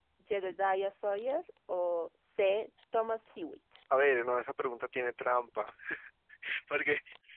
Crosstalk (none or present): none